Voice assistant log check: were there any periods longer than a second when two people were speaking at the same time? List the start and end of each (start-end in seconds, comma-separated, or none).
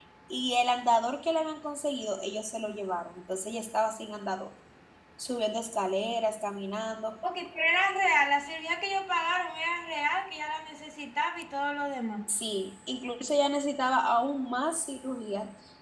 none